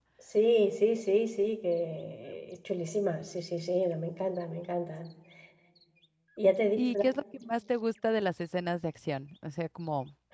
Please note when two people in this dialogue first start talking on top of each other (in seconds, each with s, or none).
none